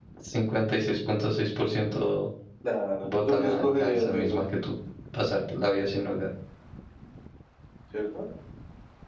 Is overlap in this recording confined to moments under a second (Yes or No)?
No